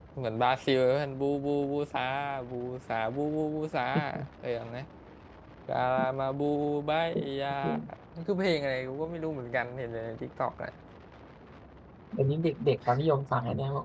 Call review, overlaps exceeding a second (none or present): none